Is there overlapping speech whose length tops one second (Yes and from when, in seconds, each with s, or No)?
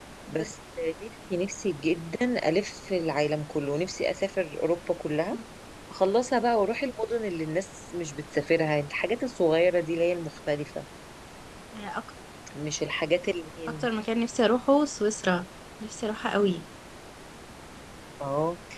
No